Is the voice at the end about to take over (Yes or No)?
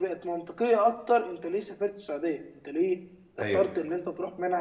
No